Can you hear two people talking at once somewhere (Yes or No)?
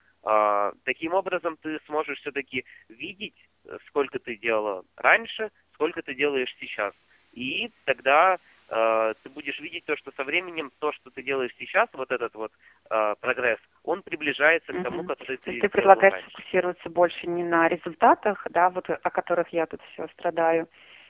Yes